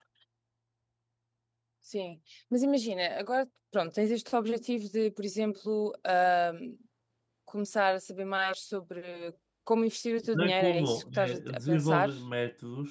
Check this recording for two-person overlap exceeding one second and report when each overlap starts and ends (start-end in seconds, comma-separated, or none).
10.3-12.1